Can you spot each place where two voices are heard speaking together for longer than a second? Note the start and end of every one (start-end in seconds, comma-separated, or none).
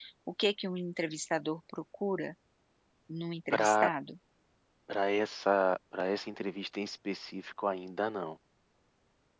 none